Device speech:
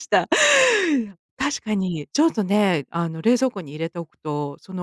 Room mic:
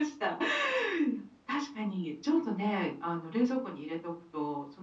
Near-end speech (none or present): none